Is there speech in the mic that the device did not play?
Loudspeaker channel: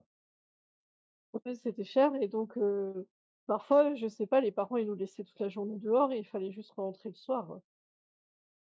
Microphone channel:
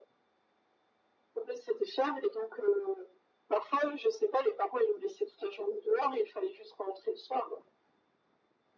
No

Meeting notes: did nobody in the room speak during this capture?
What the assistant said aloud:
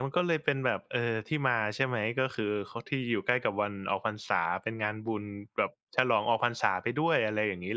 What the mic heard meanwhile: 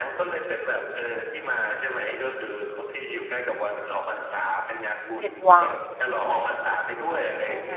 No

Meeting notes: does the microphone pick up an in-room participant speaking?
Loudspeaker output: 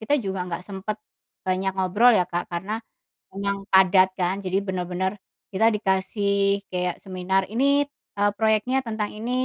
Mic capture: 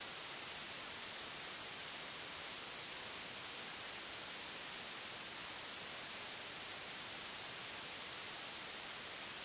No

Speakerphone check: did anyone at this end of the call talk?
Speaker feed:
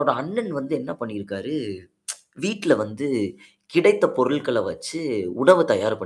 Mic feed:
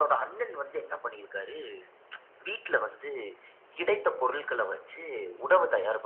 No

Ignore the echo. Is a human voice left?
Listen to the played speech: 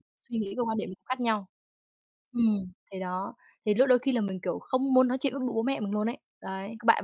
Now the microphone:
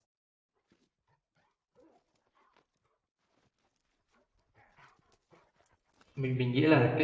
Yes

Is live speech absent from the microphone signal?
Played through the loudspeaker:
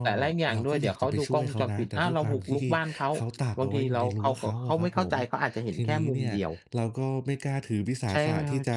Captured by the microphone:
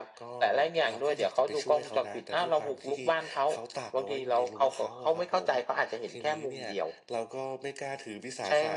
Yes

